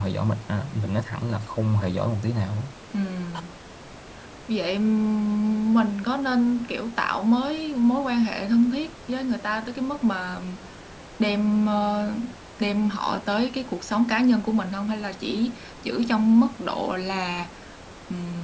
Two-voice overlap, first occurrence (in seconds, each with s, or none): none